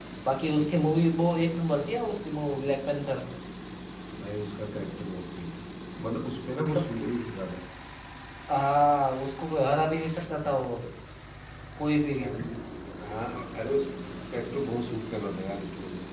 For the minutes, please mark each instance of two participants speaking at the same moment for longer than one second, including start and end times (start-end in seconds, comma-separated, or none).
none